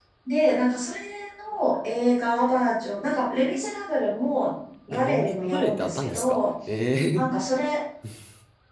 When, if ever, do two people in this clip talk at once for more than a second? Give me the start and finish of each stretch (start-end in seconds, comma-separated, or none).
4.9-6.5